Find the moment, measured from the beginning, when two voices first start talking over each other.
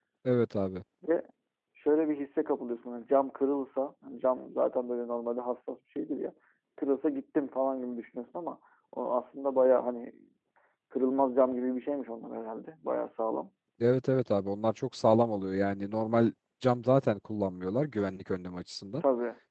none

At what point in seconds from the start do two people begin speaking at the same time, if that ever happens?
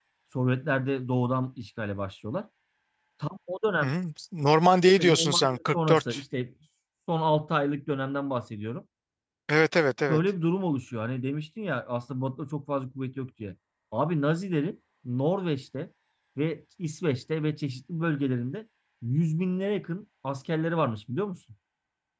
5.0 s

